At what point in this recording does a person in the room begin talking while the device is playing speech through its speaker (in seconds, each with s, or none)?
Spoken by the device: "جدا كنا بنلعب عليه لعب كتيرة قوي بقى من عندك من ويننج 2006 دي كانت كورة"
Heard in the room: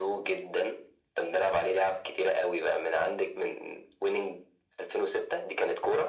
none